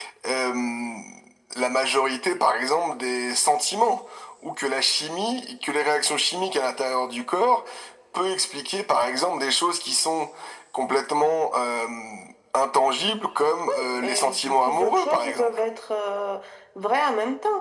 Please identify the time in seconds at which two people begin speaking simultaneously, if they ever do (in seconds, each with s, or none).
14.0 s